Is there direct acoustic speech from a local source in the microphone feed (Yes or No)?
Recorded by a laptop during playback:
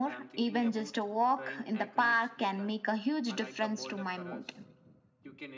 Yes